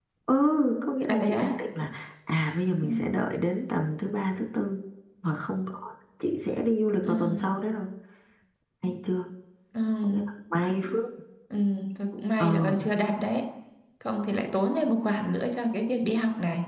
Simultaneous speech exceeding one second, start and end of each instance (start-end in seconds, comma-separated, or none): none